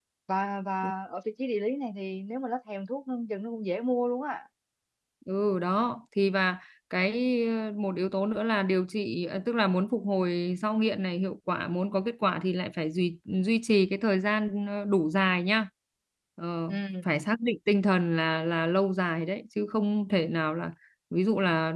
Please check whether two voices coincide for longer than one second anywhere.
No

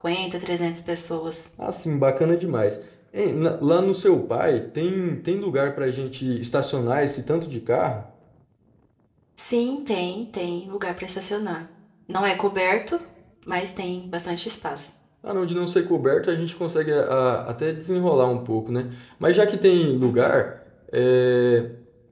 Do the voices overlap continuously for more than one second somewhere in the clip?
No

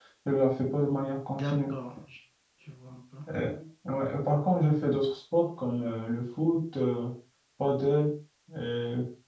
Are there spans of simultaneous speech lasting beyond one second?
No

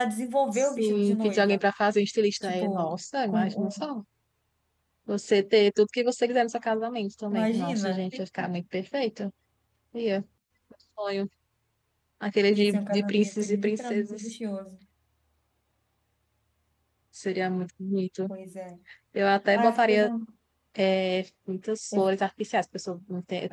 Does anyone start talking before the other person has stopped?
Yes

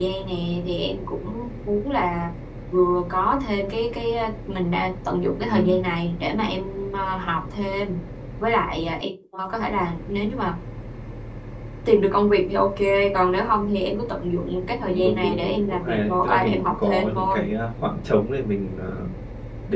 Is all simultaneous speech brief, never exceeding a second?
No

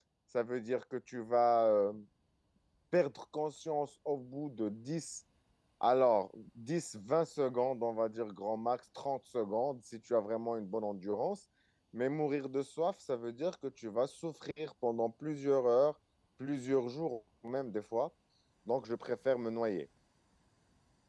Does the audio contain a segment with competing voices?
No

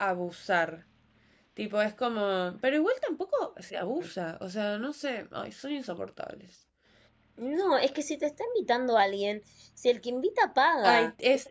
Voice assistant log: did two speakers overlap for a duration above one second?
No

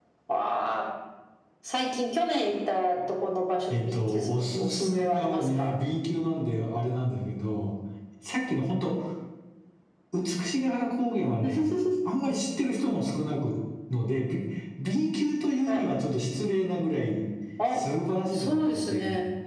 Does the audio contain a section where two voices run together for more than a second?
Yes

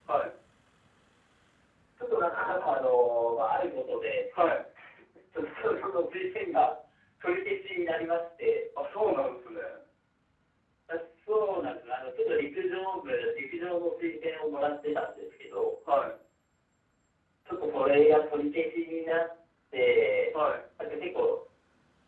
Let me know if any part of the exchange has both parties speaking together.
No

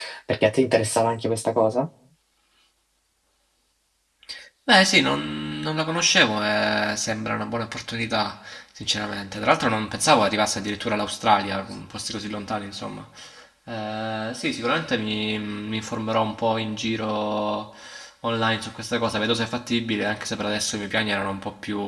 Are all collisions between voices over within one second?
Yes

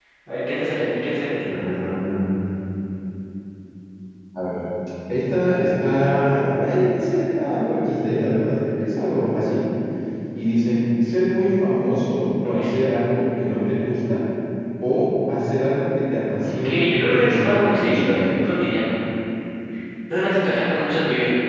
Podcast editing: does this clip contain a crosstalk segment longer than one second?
Yes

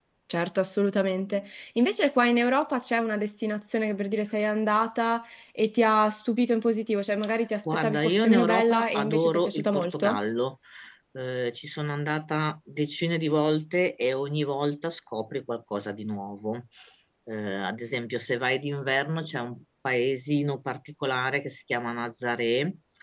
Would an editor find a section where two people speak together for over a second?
Yes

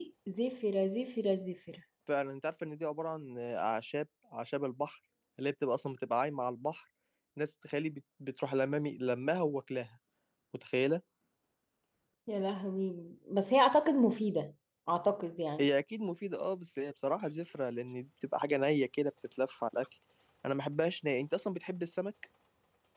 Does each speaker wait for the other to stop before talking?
Yes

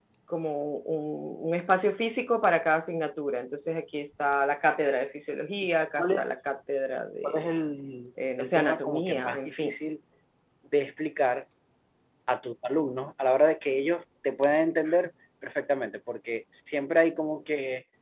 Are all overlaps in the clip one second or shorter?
No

